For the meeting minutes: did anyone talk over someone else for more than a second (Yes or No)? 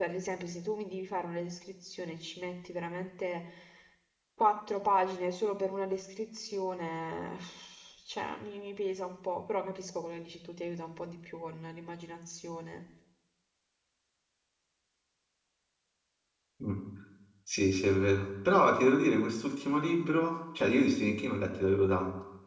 No